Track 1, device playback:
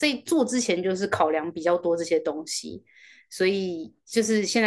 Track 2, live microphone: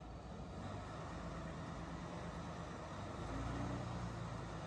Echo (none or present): none